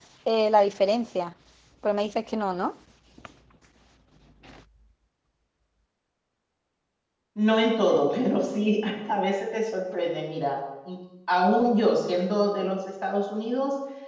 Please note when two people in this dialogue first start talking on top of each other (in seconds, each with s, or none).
none